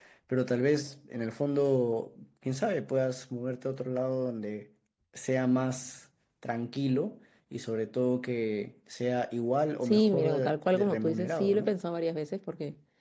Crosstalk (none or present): present